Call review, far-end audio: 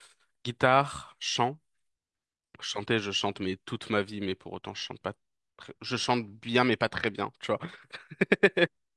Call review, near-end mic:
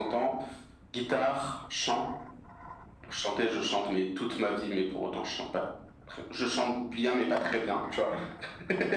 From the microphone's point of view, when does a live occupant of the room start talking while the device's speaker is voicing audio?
none

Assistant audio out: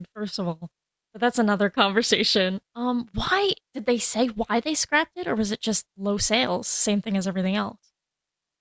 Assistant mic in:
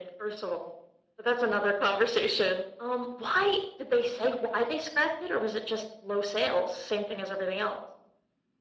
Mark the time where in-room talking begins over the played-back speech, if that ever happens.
none

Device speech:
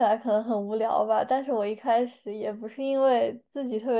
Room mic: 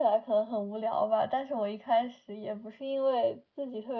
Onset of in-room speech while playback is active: none

